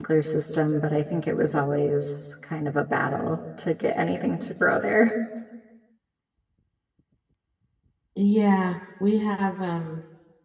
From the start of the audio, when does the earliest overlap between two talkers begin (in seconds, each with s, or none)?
none